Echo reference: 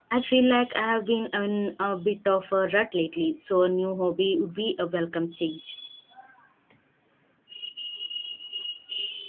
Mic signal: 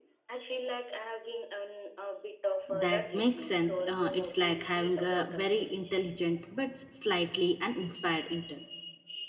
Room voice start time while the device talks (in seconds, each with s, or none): 2.7 s